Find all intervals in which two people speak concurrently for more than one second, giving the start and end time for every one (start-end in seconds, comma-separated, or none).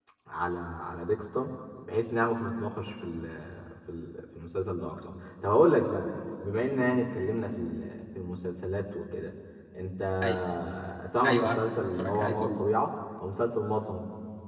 11.2-12.6